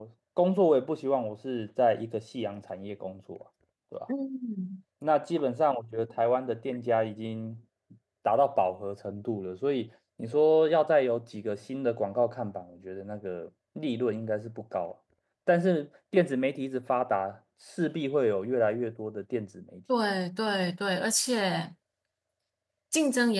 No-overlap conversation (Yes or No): Yes